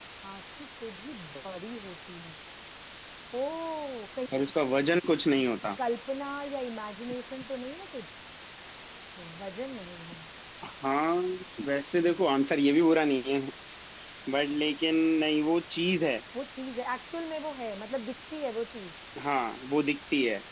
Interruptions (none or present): none